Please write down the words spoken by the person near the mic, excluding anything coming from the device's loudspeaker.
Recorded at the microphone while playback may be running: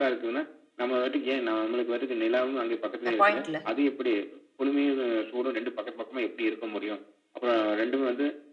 அ பாயிண்ட்‌ல?

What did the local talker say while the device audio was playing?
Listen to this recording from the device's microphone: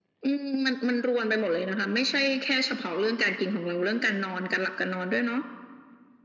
none

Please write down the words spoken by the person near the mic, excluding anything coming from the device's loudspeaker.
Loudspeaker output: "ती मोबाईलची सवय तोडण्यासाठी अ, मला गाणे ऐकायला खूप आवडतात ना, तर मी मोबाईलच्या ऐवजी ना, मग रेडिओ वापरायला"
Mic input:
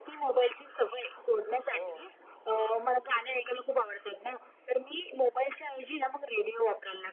हो.

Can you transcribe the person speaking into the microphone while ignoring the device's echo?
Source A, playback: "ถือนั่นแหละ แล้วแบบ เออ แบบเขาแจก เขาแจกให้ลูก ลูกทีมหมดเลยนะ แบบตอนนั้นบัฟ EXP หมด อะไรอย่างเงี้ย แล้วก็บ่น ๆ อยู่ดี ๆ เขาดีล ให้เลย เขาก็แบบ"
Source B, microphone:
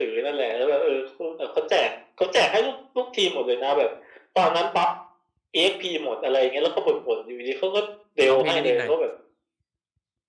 ร้องเพลงได้นิดหน่อย

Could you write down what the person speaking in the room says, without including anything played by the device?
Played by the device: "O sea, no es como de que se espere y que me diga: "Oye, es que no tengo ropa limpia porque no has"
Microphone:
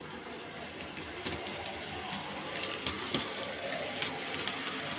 none

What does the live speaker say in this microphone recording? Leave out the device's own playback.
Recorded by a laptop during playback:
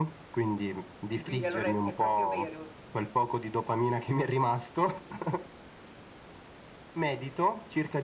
Quindi allora è è proprio vero

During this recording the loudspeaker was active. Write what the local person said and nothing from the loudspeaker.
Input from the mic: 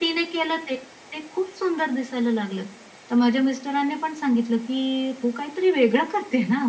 none

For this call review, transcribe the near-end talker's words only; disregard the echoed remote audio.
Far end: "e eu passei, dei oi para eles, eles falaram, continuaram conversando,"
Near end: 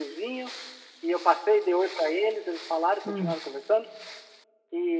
Hum.

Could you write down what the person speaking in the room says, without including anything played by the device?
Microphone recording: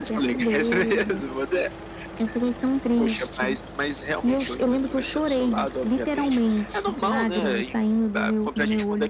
none

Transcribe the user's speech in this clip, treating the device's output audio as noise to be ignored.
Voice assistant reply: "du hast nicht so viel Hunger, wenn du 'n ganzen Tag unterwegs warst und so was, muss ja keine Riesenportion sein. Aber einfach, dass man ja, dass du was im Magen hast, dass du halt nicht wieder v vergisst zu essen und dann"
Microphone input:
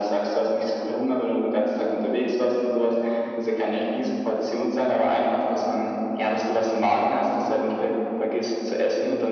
none

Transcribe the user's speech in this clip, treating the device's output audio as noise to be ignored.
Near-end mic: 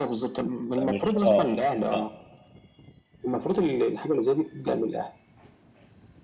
فمش آه، آه.

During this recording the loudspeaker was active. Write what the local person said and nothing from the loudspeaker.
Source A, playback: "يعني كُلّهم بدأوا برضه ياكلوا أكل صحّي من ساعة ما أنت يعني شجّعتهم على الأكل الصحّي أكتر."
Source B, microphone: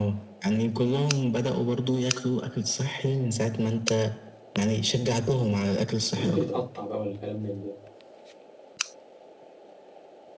ممكن يتقطع بقى والكلام من ده،

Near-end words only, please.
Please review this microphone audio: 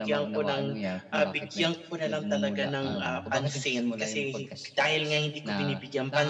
Mm.

